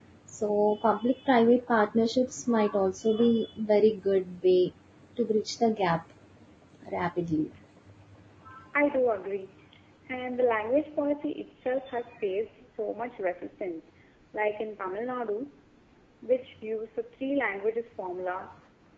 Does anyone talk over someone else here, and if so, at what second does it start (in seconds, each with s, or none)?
none